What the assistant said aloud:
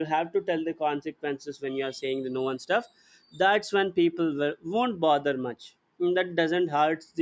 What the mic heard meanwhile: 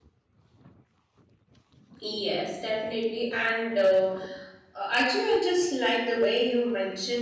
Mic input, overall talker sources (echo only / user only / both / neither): user only